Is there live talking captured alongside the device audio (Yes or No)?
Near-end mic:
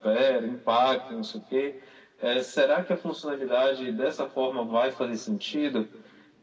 No